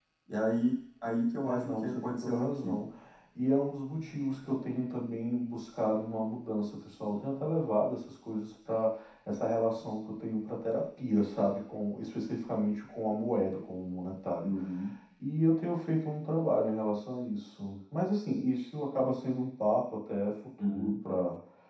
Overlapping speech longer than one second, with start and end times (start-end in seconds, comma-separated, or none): 1.4-2.9